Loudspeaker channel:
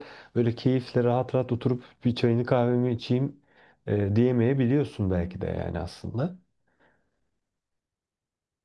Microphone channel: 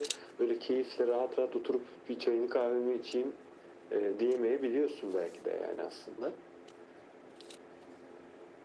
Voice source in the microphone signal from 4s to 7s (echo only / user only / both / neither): echo only